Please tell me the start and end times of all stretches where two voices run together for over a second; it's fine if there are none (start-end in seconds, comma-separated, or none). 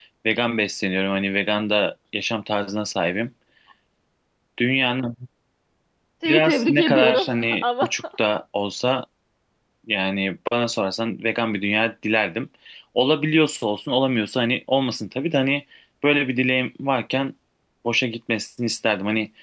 6.2-7.9